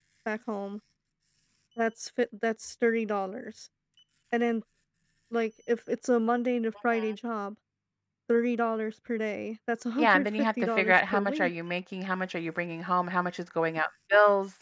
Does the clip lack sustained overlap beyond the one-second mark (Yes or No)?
No